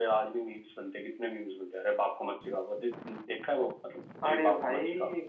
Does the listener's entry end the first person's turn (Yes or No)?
Yes